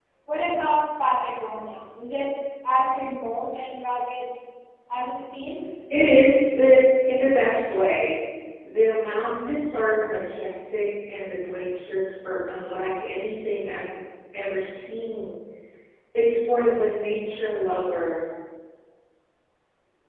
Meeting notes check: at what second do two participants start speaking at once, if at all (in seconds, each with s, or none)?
none